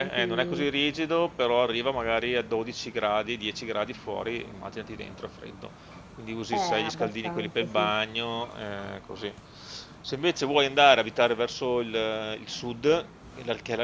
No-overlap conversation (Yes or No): No